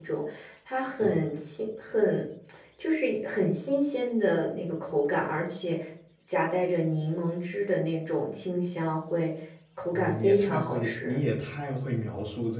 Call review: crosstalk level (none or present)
present